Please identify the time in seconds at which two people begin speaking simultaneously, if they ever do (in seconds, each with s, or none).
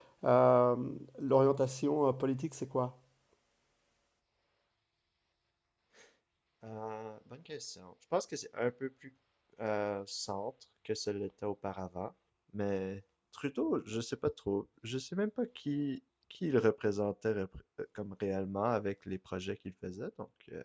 none